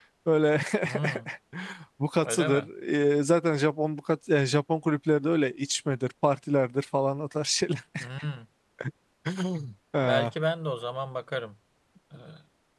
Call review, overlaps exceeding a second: none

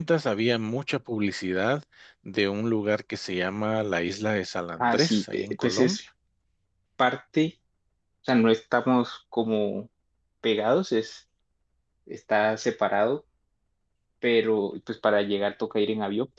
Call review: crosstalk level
present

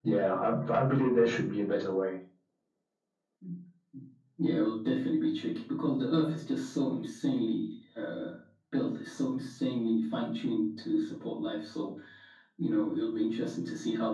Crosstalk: none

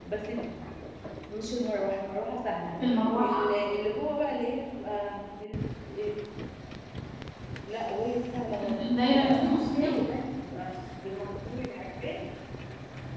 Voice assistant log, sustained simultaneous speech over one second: present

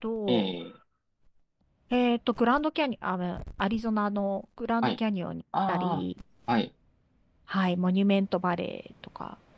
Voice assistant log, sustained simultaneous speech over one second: none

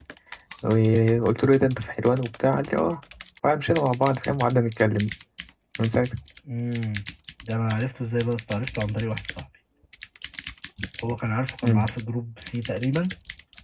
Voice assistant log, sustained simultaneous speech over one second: none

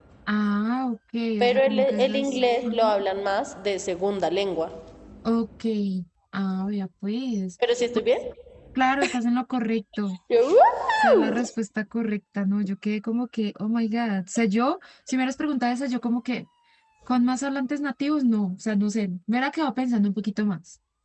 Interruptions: present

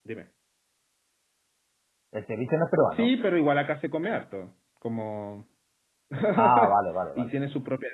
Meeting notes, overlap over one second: none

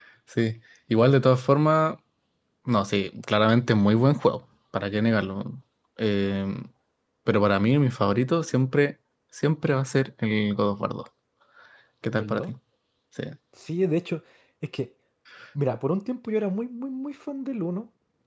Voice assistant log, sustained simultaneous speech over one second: none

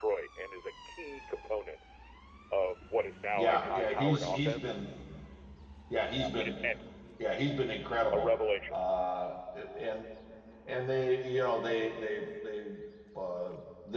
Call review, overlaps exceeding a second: present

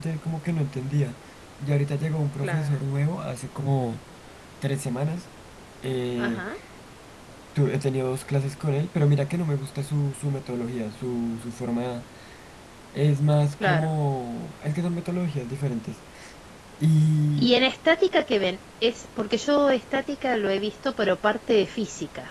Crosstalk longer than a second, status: none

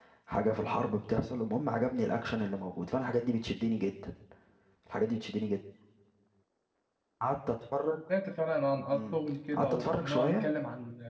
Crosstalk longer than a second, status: present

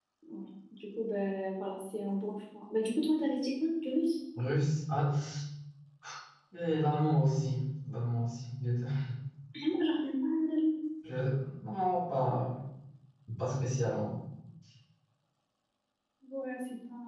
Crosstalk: none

